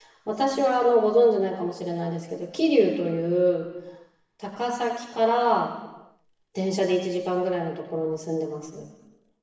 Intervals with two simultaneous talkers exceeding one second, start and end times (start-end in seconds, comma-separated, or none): none